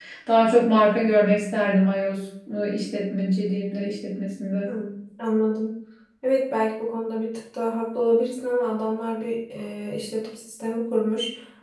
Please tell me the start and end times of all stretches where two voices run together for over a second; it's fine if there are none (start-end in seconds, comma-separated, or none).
none